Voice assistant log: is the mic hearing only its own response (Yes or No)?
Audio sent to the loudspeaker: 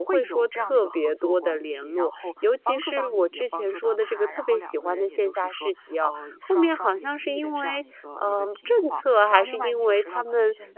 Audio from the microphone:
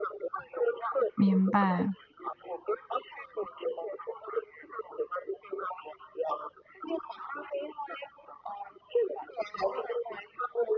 No